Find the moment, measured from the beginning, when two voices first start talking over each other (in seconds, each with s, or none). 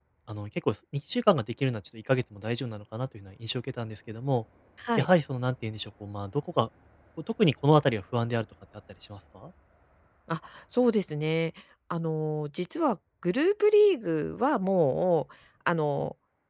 none